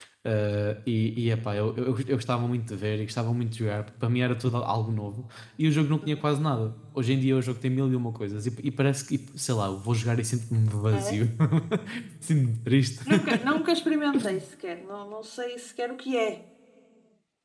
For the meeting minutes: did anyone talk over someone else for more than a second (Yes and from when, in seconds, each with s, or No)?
No